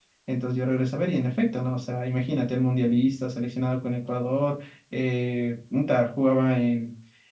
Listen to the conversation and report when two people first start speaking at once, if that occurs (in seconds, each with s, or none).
none